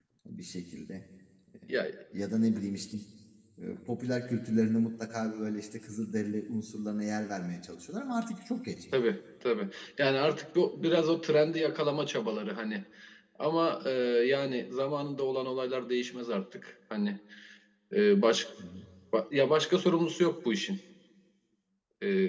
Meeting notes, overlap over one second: none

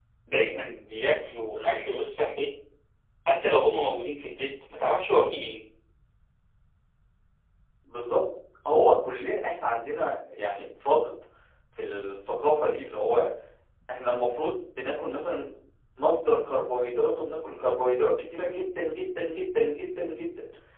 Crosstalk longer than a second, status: none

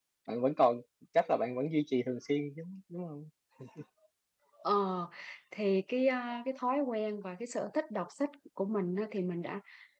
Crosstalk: none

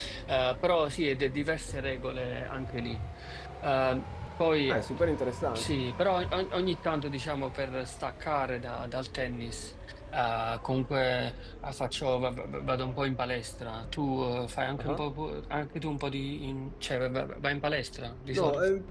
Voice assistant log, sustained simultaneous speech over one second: none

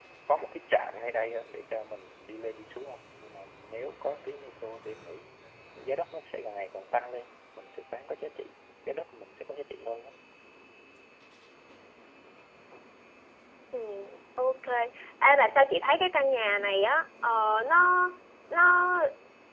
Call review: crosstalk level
none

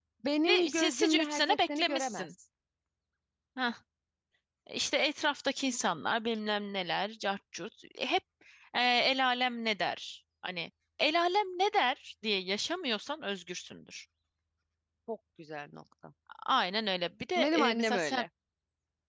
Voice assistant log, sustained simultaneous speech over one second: present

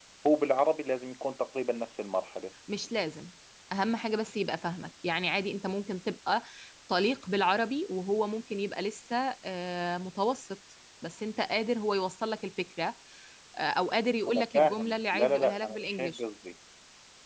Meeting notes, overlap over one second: present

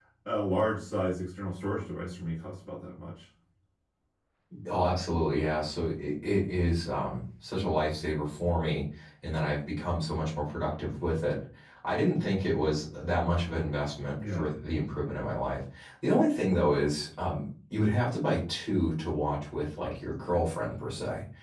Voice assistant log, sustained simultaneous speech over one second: none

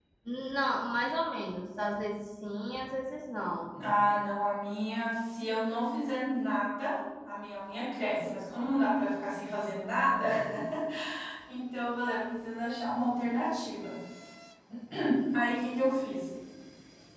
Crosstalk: none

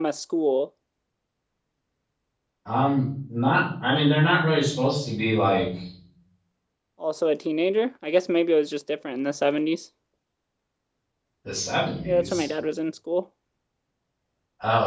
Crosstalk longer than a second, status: none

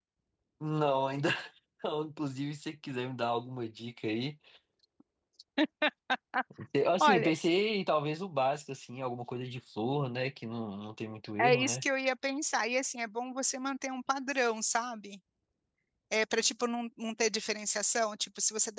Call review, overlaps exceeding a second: none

